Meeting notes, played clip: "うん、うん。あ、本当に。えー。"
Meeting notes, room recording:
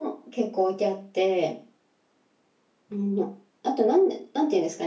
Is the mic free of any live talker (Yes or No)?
No